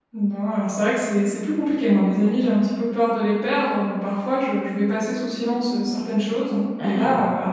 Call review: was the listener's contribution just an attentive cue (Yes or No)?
Yes